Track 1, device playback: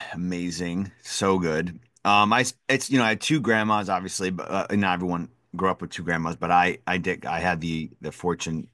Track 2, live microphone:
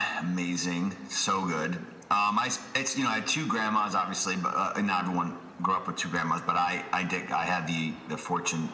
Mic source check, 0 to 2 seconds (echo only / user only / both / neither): echo only